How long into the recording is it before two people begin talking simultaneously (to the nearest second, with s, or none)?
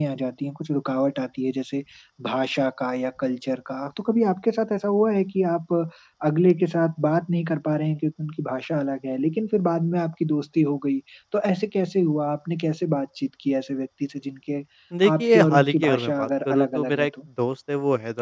15 s